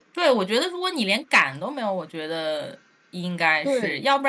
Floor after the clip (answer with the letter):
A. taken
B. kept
B